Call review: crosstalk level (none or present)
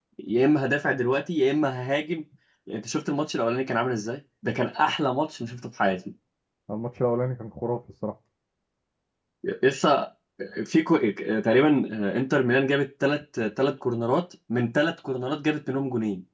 none